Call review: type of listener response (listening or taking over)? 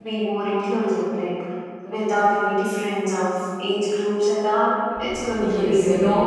taking over